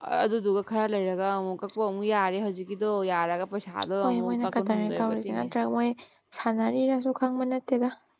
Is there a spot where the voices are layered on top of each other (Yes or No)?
Yes